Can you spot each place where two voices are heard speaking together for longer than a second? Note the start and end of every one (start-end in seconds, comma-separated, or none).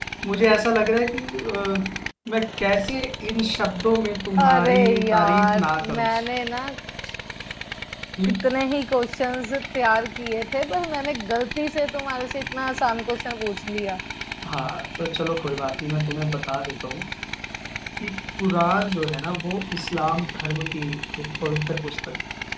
4.4-6.1